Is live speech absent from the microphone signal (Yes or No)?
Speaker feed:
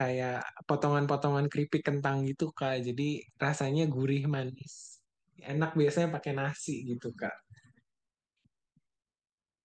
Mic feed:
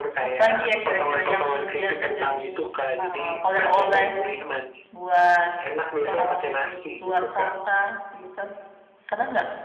No